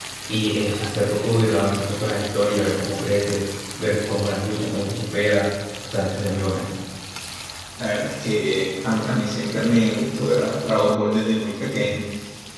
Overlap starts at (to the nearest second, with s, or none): none